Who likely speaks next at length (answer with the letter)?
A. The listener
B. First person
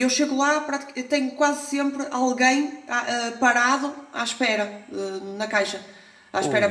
A